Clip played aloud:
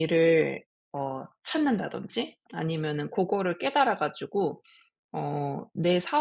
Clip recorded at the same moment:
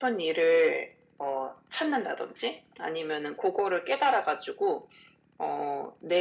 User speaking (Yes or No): No